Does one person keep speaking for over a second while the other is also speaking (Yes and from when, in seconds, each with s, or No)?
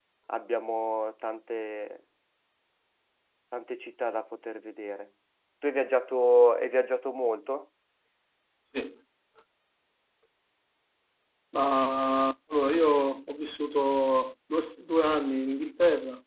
No